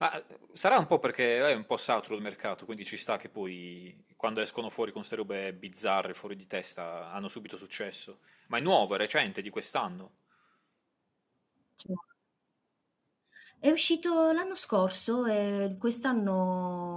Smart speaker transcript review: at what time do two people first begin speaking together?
none

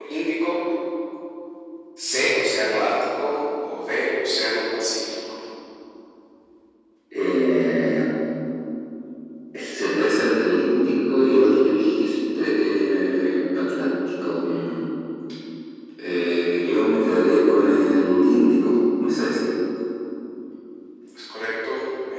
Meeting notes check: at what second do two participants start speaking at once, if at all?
none

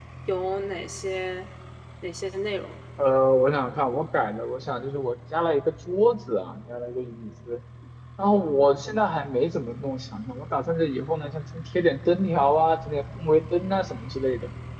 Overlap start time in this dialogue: none

